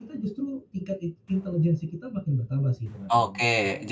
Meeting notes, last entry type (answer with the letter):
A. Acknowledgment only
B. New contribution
B